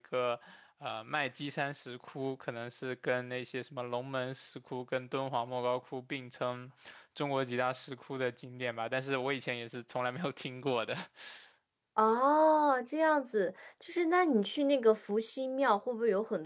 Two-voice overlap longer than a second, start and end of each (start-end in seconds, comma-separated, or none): none